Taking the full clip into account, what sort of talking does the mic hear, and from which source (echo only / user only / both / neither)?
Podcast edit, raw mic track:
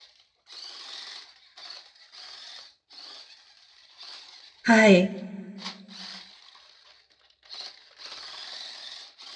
user only